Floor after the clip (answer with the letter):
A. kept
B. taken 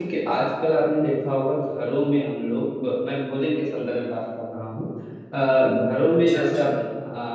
A